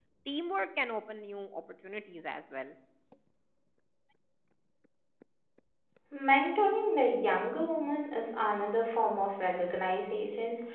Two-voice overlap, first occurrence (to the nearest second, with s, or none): none